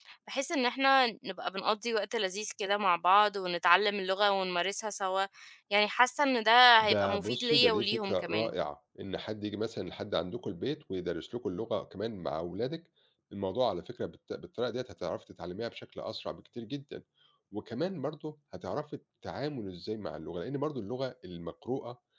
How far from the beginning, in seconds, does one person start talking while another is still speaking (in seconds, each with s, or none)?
6.8 s